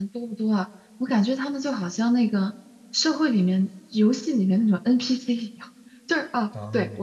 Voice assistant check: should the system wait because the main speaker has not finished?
Yes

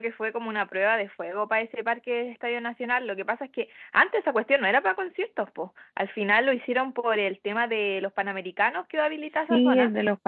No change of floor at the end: No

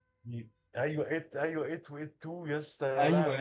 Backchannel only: No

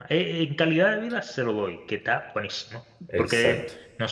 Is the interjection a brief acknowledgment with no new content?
Yes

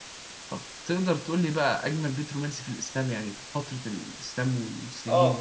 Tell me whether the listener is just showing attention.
No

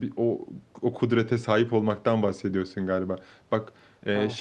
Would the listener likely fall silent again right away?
Yes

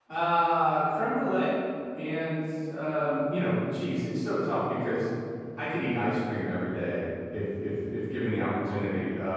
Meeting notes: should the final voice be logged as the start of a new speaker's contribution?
No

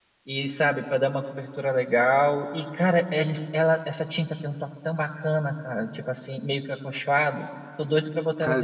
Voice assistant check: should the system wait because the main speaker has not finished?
No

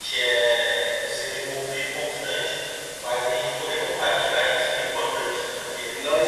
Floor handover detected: Yes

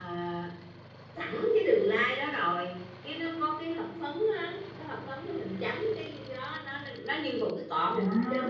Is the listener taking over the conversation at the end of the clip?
No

